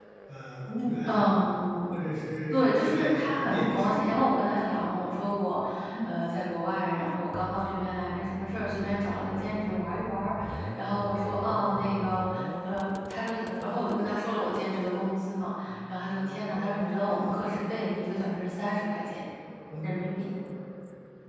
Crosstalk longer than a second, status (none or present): present